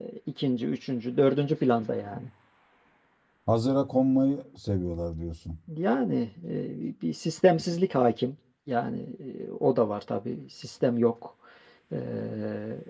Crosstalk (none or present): none